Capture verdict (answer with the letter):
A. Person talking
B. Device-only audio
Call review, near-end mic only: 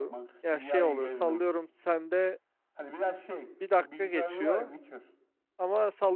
A